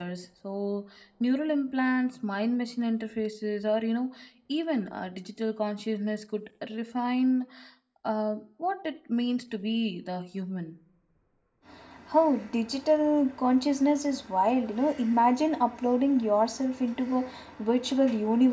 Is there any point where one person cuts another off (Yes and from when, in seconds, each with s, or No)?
No